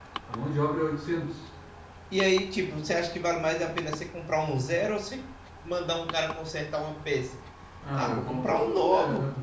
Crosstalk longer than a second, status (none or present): present